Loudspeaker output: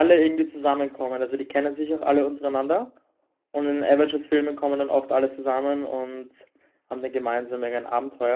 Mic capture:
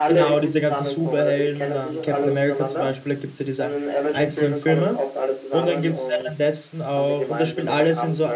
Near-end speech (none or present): present